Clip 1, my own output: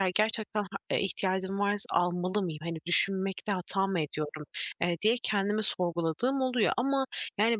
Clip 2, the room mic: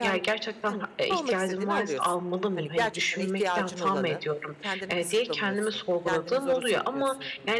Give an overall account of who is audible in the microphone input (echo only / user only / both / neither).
both